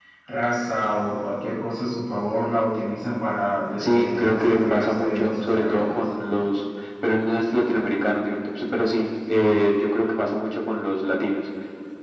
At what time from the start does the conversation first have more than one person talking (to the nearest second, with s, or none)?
4 s